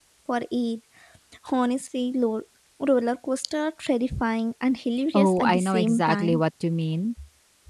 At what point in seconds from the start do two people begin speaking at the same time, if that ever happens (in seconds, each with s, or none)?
5.1 s